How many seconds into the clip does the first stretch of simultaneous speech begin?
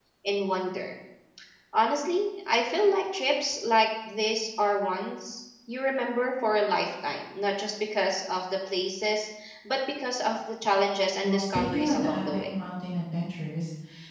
11.2 s

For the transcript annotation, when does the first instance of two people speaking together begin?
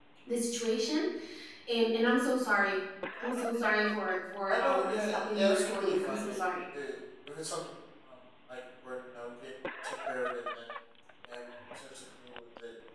4.5 s

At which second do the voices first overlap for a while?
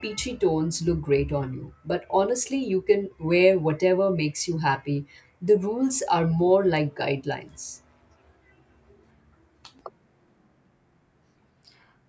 none

